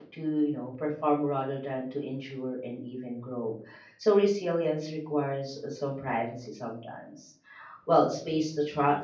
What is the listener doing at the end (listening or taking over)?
listening